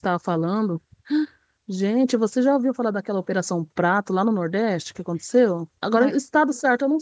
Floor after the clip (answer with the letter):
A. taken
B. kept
B